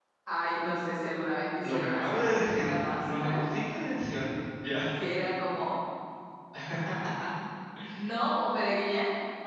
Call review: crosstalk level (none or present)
present